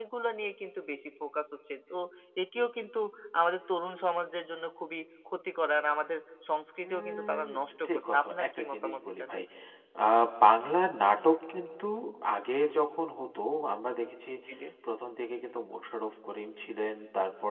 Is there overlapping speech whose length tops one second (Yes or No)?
Yes